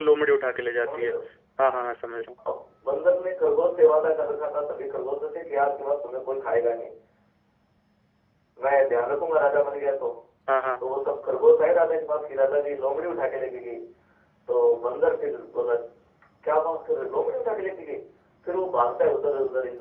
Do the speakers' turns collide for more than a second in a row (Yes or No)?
No